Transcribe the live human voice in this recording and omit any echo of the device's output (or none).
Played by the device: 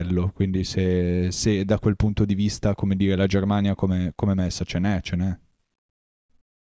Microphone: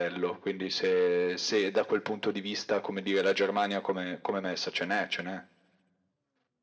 none